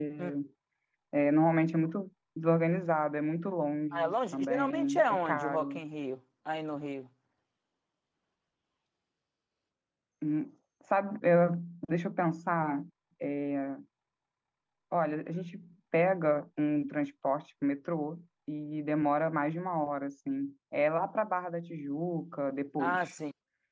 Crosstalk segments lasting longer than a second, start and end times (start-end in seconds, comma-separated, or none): 3.9-5.8